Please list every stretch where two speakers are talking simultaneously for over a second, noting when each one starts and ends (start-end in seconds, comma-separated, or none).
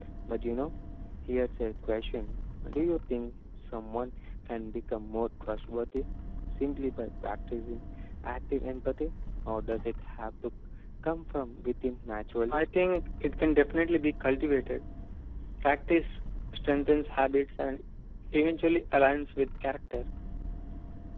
none